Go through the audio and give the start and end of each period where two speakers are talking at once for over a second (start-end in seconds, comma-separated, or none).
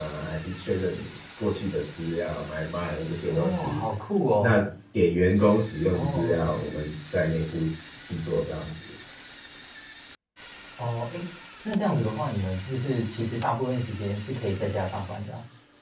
none